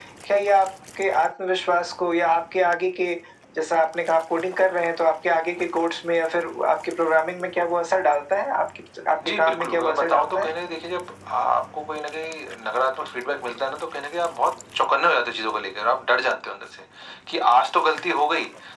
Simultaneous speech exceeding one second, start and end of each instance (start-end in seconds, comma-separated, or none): 9.2-10.5